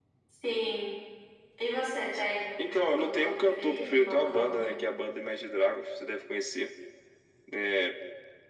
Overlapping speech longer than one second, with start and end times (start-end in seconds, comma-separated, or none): 2.6-4.8